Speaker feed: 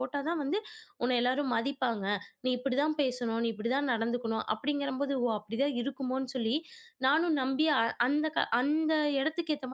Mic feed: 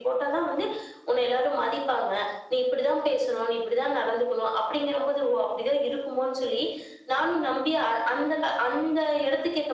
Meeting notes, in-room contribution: none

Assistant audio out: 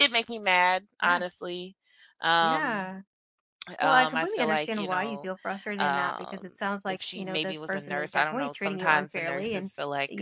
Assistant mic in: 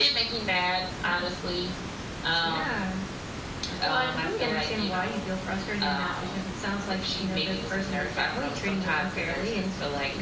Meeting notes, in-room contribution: none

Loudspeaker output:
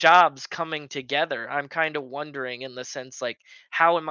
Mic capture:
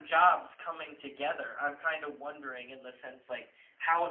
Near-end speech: none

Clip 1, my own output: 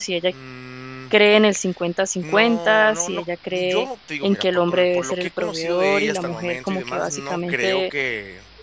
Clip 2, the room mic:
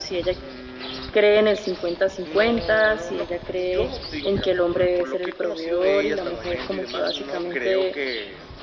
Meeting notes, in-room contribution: none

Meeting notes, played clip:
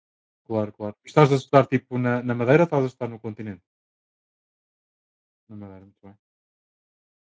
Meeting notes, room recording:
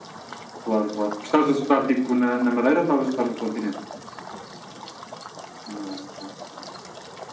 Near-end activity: none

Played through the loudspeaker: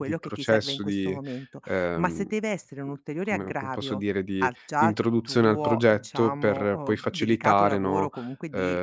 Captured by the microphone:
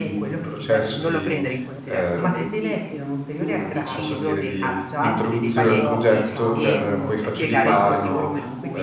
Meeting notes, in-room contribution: present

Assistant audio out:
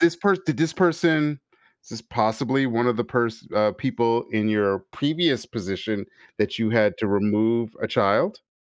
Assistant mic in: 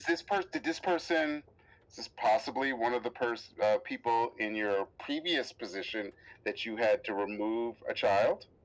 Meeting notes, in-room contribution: none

